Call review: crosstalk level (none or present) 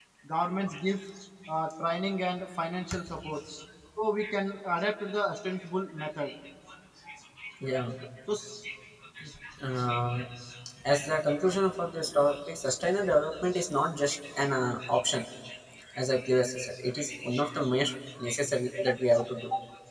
none